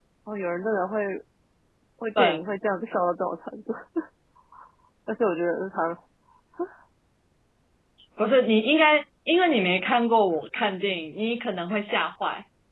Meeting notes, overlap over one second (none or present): none